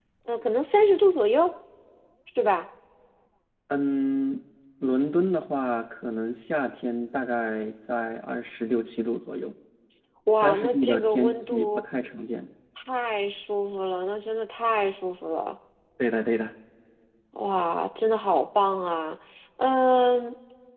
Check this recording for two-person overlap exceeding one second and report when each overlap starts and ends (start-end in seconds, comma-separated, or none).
10.3-11.8